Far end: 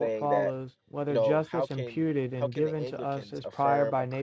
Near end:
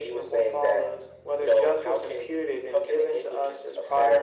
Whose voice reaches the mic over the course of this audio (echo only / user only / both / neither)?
echo only